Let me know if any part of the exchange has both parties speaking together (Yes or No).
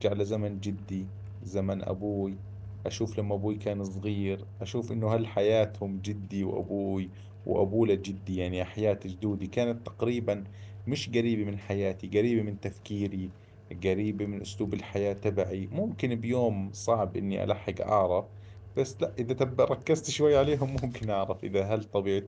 No